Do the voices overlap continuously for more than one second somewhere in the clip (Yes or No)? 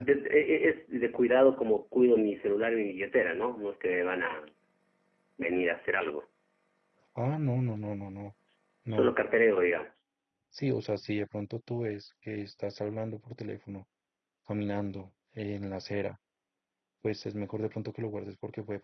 No